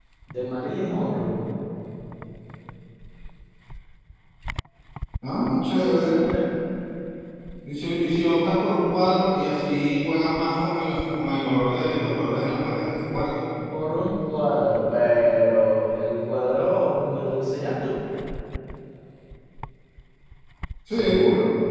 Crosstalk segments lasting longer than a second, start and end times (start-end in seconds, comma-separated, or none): none